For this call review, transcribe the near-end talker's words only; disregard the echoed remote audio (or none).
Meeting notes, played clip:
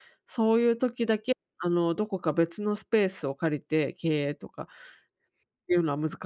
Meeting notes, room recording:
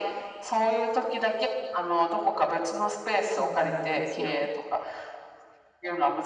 そうなんですよ。